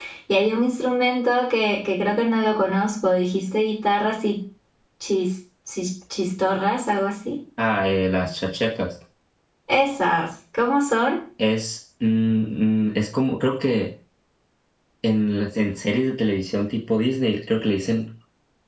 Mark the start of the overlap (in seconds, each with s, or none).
none